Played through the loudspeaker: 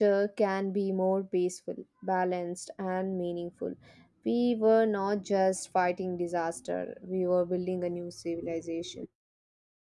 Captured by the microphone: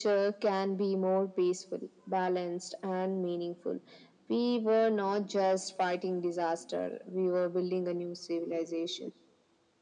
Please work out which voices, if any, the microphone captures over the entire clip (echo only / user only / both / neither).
echo only